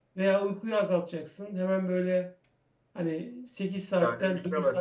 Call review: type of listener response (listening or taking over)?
listening